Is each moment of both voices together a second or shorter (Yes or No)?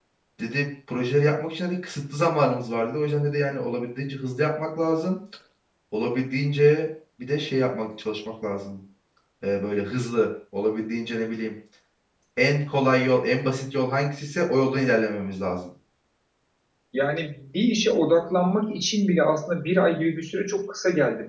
Yes